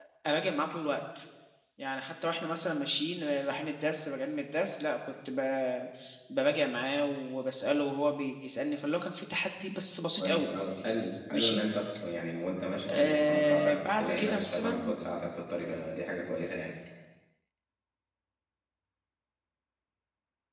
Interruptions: present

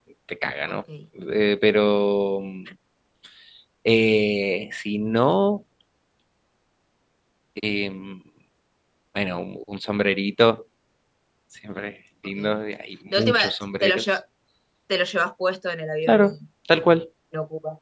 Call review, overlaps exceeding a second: none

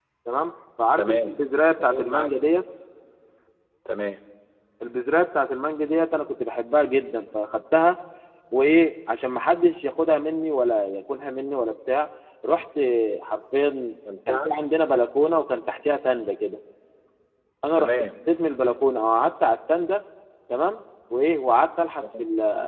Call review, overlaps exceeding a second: none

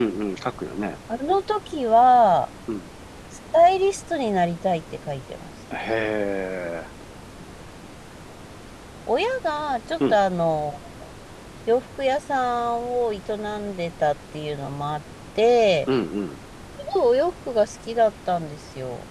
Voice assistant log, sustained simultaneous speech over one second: none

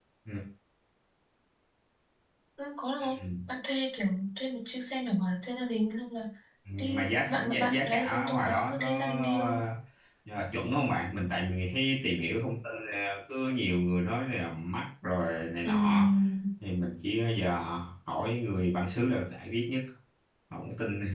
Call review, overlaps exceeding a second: present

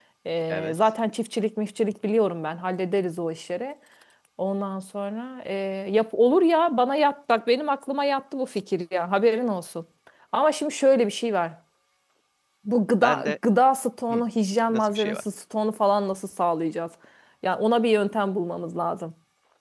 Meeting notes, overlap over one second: none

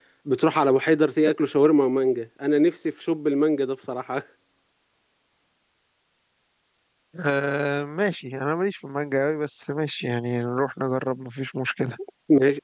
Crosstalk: none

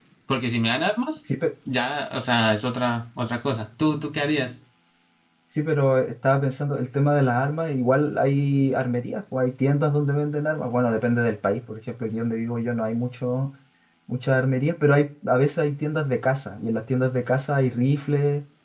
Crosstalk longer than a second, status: none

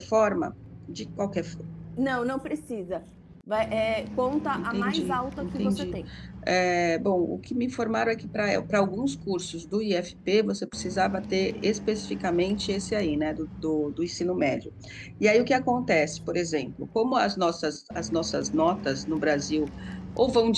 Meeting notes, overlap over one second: present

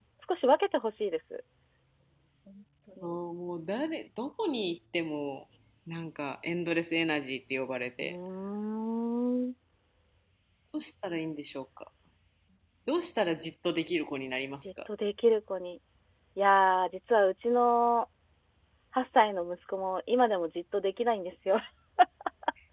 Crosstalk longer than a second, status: none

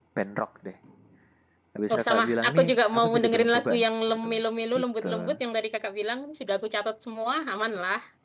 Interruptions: present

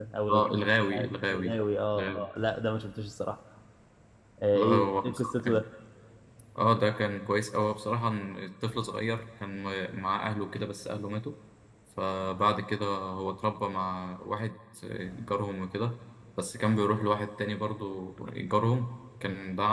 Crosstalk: present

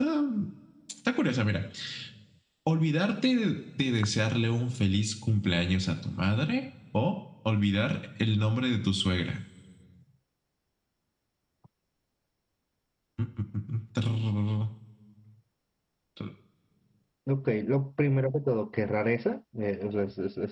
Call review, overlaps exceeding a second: none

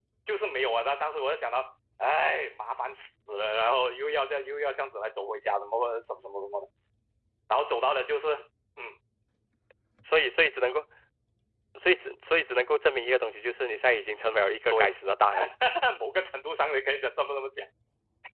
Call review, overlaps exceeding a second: none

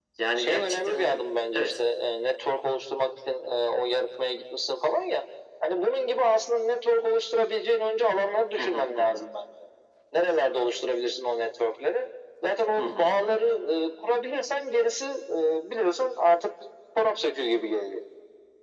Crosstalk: present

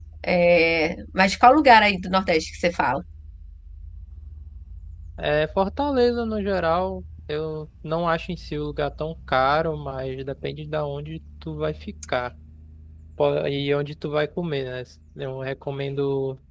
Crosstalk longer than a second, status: none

